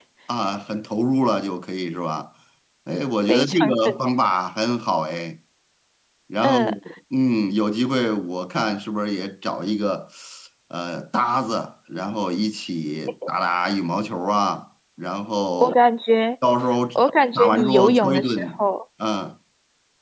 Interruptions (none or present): present